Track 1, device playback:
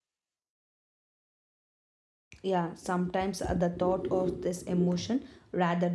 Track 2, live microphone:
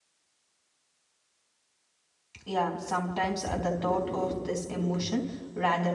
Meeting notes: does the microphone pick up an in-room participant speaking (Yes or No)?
No